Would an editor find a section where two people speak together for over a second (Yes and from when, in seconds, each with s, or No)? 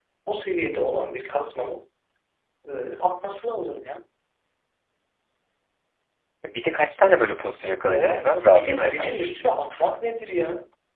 Yes, from 7.9 s